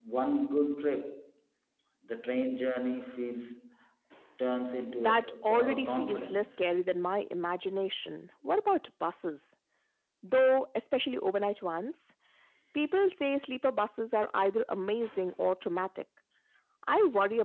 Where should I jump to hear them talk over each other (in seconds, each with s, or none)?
5.0 s